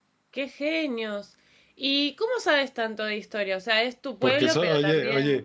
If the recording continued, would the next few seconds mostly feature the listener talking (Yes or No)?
Yes